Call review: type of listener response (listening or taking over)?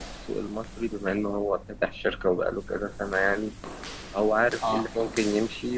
listening